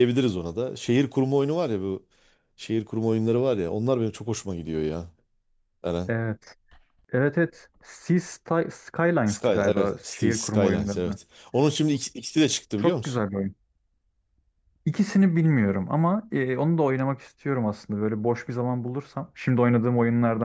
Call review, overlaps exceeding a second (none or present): present